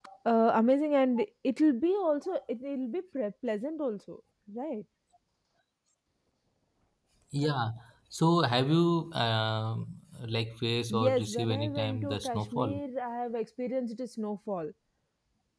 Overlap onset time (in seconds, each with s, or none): 10.9 s